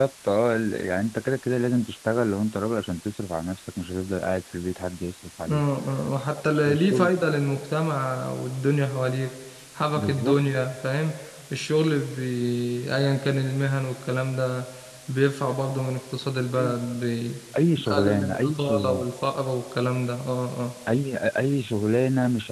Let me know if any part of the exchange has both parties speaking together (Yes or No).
Yes